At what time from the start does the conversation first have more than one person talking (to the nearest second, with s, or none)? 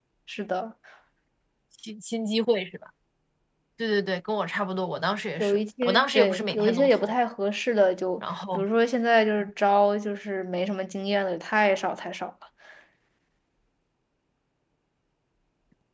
5 s